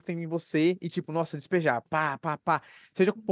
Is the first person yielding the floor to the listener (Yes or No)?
No